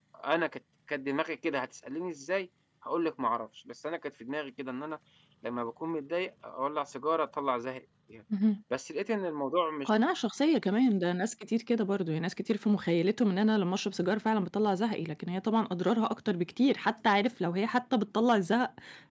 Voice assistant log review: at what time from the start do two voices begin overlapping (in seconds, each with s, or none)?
none